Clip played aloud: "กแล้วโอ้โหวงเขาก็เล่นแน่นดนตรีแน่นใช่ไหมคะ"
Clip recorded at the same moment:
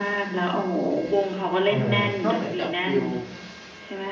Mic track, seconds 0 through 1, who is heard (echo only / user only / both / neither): echo only